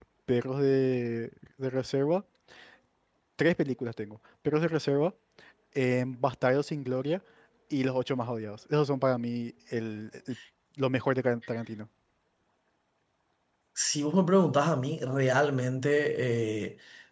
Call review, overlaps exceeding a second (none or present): none